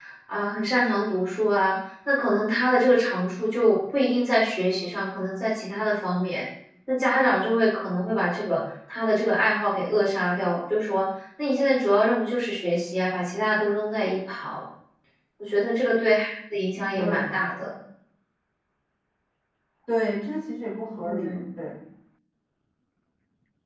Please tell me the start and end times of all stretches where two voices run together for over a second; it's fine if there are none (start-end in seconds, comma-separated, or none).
none